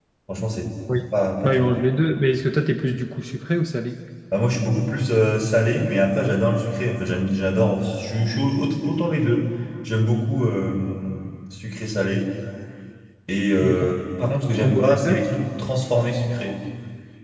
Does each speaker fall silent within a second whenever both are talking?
No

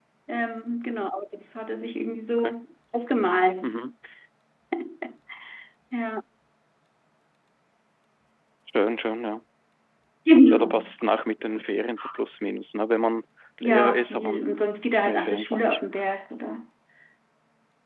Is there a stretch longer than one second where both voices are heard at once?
Yes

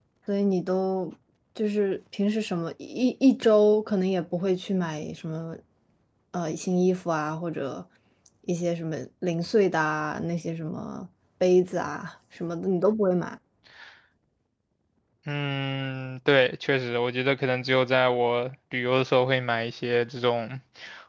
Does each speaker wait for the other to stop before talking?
Yes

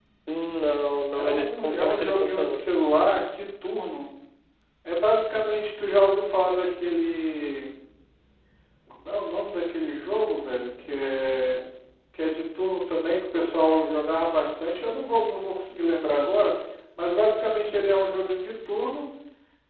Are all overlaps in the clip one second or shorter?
No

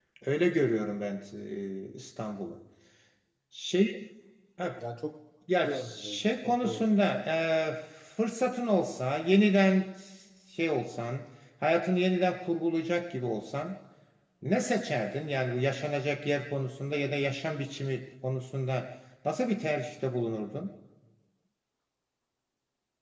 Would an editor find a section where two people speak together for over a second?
Yes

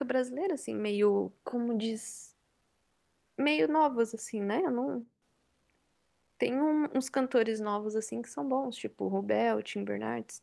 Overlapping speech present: No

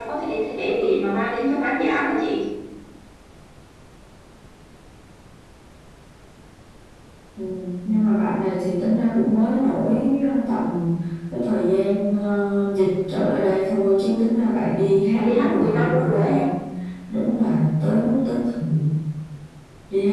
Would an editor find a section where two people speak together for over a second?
Yes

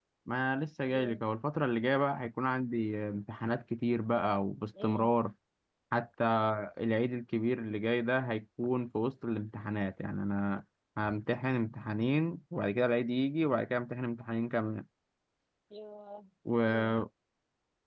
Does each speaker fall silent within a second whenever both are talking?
Yes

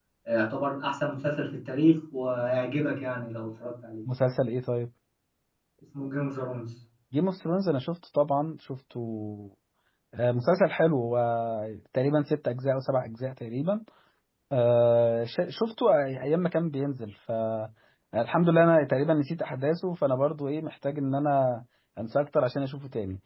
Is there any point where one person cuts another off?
No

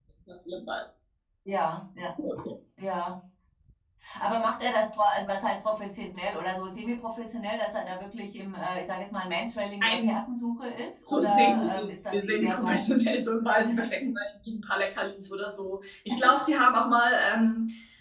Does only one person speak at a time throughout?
No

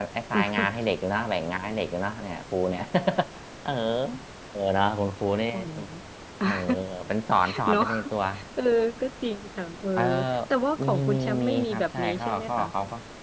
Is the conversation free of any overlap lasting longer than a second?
No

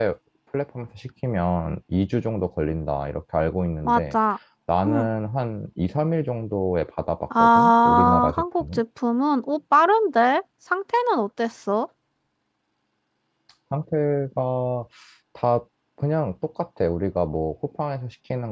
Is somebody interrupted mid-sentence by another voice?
Yes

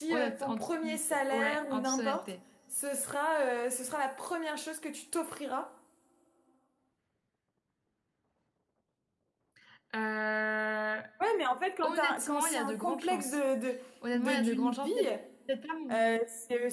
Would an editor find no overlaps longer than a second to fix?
No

